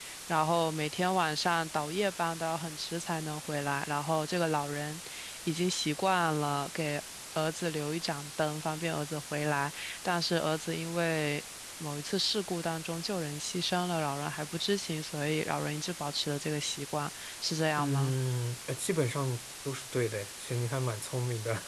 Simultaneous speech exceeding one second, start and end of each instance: none

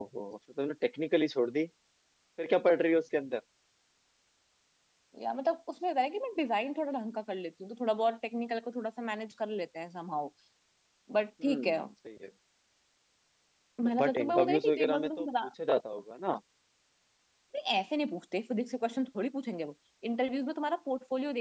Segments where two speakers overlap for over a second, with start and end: 13.8-15.3

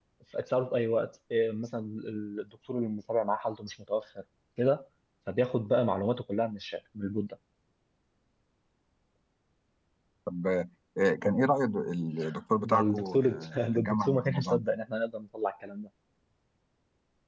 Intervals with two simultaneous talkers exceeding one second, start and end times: 12.6-14.6

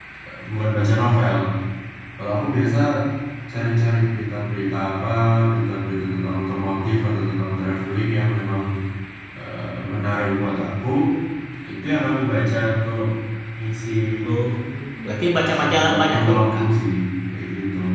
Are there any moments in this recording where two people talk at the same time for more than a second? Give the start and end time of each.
15.3-16.6

